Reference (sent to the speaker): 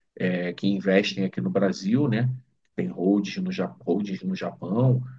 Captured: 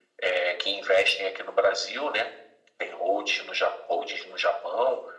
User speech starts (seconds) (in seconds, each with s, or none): none